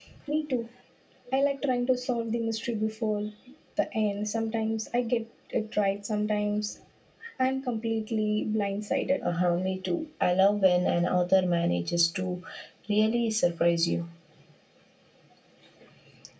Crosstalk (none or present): none